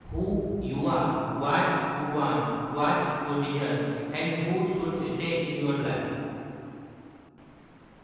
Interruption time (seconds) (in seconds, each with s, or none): none